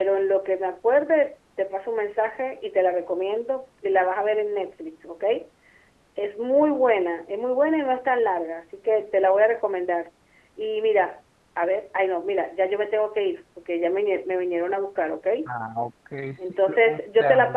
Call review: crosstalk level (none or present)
present